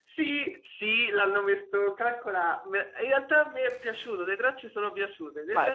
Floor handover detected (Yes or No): Yes